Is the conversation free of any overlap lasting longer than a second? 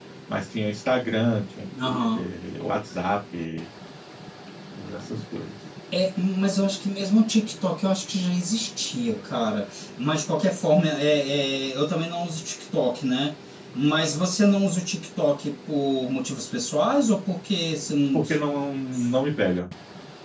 Yes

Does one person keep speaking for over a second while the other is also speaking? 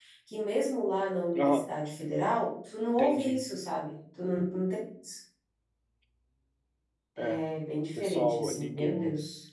Yes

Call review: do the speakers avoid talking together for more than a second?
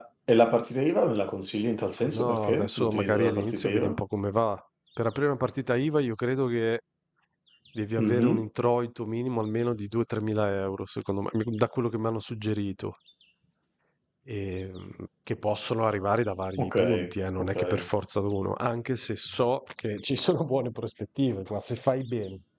No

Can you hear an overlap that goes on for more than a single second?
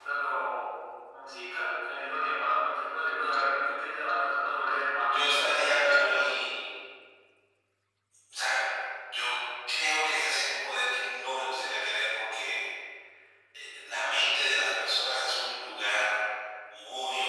Yes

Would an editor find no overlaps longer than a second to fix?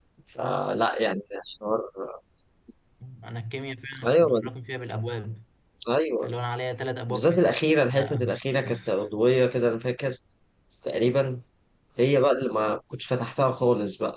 Yes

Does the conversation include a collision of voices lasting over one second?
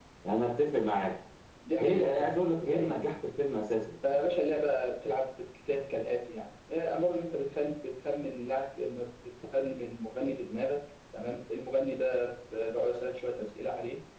Yes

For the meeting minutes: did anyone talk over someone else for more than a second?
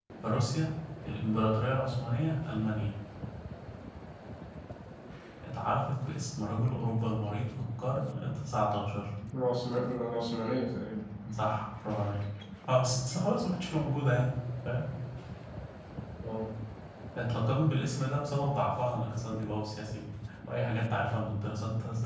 No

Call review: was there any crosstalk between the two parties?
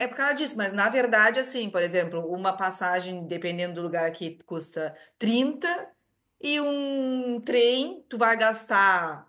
No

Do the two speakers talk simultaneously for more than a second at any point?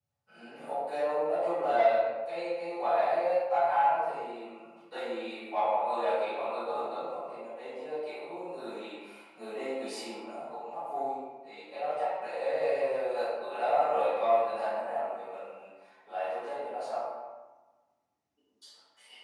No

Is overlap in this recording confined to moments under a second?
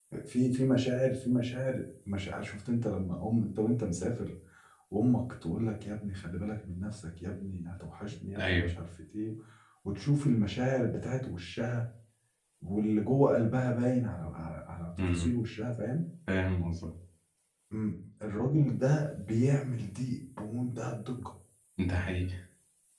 Yes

